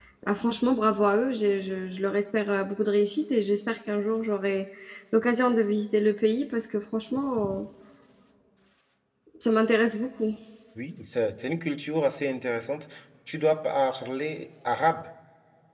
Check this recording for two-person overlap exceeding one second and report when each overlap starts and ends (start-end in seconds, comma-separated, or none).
none